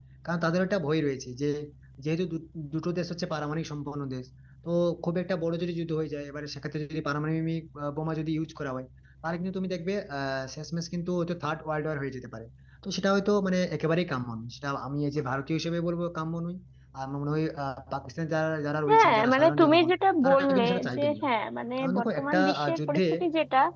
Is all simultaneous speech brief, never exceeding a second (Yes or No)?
No